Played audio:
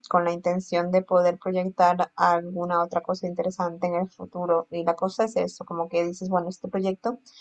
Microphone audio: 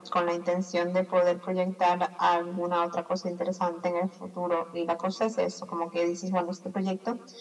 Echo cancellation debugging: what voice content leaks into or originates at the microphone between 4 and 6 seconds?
echo only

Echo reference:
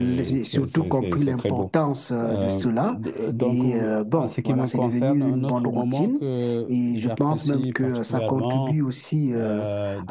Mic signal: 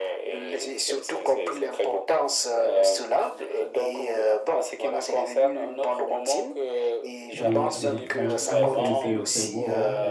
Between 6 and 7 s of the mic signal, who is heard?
echo only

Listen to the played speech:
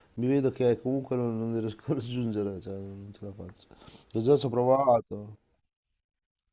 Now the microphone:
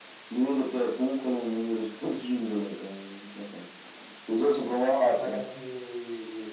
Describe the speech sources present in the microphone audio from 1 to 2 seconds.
echo only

